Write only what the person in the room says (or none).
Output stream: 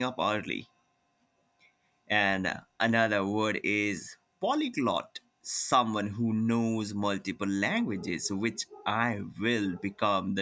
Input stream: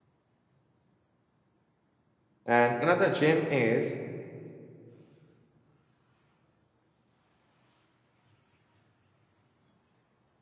And another gem is